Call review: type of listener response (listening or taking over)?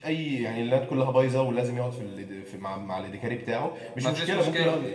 listening